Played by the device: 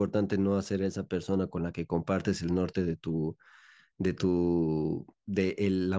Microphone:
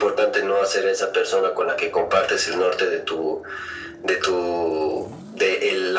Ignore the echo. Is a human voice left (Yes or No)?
No